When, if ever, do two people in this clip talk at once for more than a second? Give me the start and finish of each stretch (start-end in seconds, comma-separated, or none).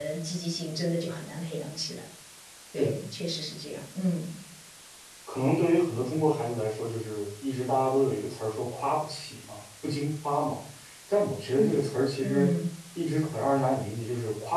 none